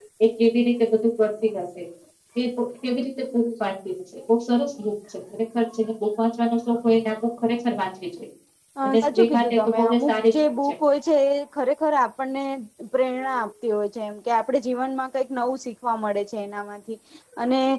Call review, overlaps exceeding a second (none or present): present